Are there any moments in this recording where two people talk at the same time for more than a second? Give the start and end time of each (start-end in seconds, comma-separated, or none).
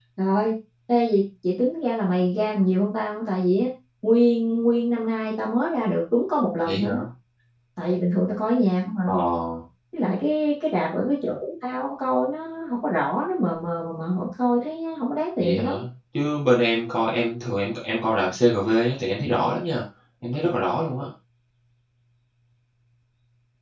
none